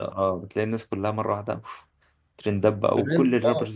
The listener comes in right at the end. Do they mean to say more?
Yes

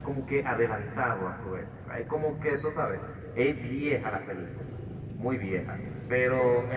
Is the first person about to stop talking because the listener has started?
No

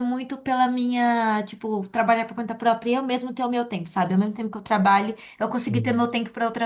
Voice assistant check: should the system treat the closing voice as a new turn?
No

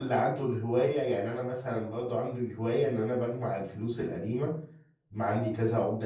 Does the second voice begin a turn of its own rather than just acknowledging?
No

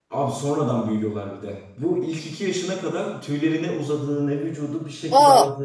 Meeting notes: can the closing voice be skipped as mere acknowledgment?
Yes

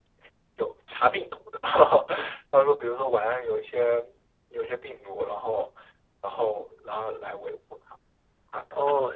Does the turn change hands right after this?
Yes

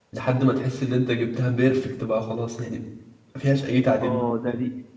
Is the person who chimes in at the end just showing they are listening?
No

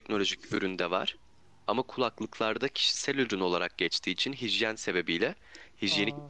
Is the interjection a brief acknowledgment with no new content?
Yes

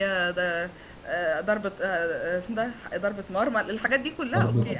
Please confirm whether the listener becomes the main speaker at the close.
Yes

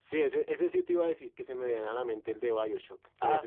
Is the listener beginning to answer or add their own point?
Yes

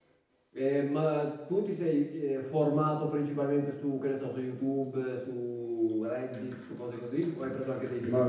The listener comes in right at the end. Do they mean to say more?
Yes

